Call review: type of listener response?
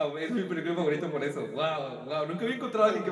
listening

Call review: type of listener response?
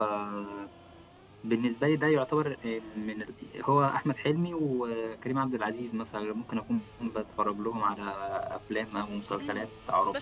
taking over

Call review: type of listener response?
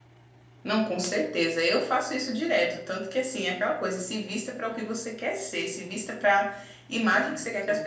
listening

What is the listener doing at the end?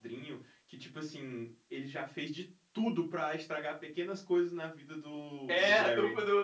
taking over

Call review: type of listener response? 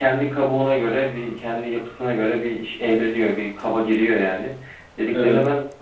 listening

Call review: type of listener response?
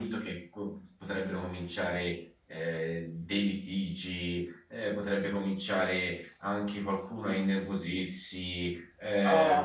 taking over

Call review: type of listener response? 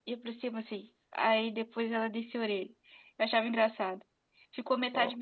listening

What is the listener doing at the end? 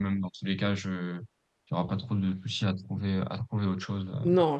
taking over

